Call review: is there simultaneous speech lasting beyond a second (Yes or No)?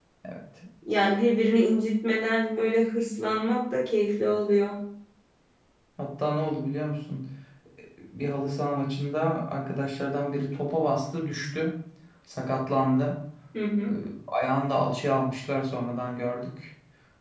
No